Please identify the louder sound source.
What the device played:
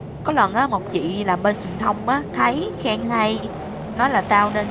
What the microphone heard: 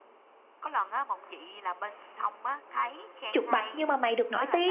user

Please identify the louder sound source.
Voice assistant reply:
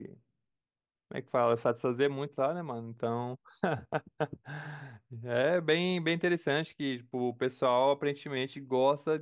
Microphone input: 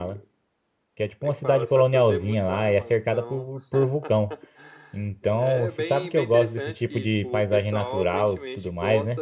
user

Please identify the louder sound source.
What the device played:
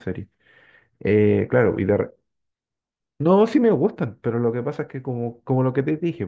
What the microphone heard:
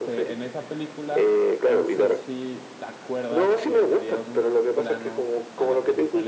echo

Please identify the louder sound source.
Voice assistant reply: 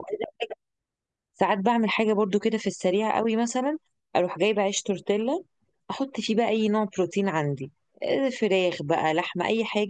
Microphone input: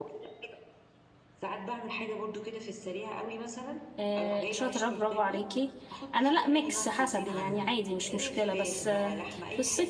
user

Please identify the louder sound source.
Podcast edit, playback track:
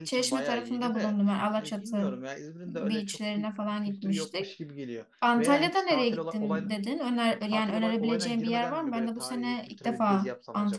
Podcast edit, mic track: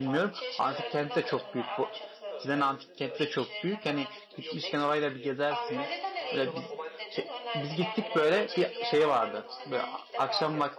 user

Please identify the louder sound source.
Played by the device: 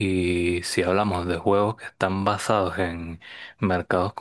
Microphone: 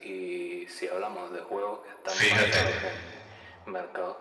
user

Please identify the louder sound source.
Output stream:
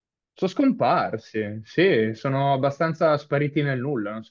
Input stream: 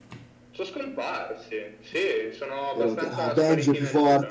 user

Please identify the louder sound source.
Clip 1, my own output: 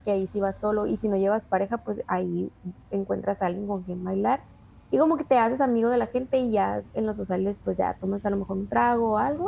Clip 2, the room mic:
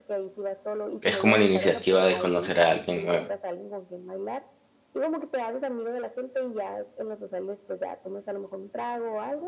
user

